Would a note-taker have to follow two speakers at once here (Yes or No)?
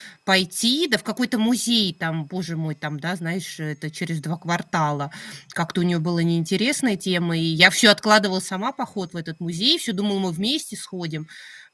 No